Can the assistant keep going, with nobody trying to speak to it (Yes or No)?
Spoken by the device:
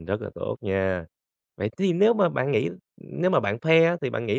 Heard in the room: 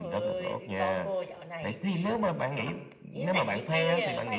No